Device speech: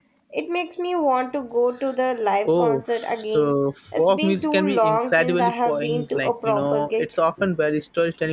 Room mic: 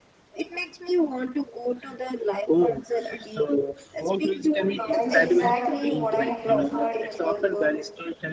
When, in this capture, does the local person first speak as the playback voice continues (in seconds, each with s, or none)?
4.9 s